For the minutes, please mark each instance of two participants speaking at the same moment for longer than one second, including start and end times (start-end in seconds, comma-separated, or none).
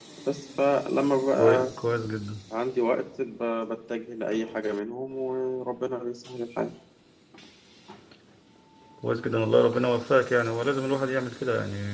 none